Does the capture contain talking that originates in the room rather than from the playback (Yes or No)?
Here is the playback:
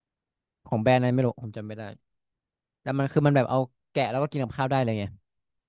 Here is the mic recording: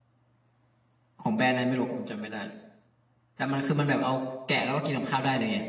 No